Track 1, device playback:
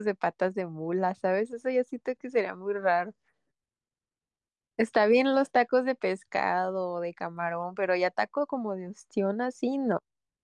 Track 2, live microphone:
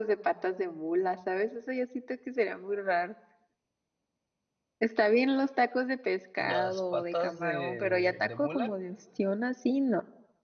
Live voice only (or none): las patas de, de mula,